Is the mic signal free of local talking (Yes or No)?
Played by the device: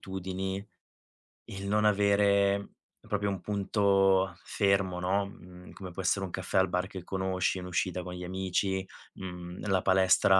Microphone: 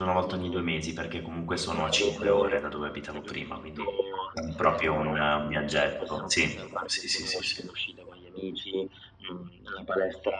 No